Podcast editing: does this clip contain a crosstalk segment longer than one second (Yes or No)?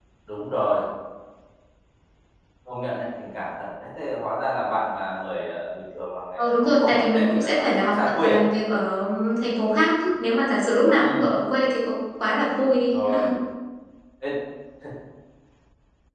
Yes